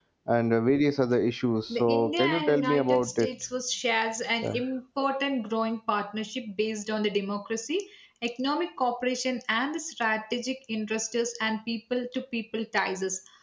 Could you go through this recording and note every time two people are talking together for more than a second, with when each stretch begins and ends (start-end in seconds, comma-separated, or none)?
1.8-3.3